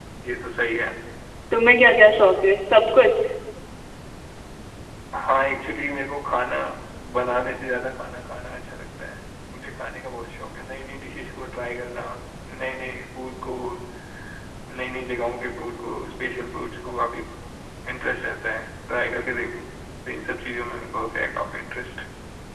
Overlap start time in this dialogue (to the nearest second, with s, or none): none